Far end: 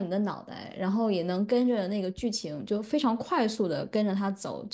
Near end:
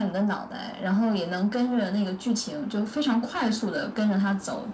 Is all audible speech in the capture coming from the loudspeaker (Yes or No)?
Yes